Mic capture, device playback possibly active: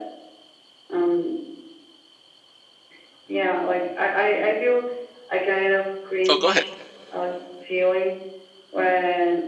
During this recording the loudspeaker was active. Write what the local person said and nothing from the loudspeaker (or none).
oh go ahead